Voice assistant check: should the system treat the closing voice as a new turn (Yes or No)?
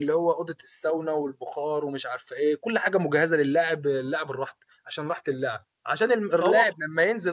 No